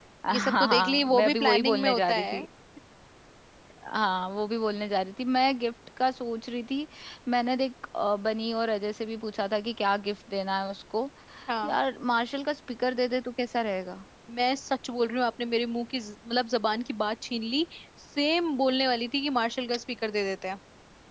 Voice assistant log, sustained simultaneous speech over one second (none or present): present